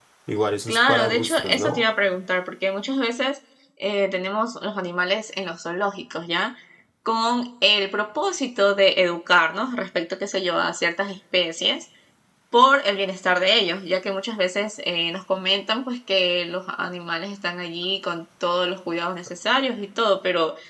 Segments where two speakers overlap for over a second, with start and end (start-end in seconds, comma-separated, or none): 0.7-1.9